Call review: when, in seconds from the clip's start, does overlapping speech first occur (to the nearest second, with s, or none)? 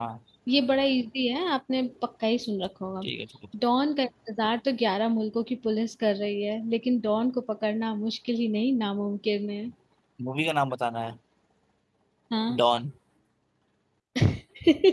none